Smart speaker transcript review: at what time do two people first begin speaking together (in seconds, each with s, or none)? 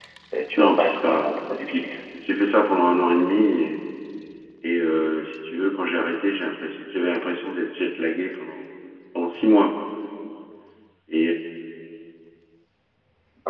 0.6 s